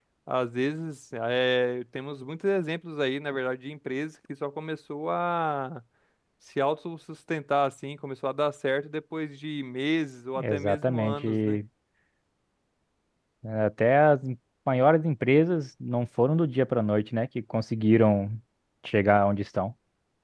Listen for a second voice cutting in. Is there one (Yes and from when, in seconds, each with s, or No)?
Yes, from 10.4 s